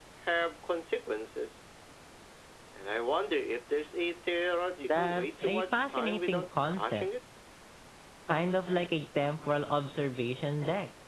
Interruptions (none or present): present